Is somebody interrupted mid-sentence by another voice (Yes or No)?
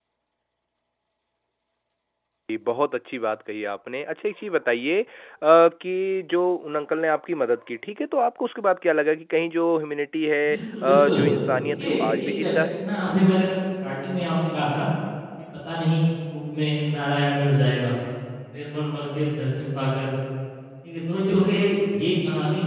Yes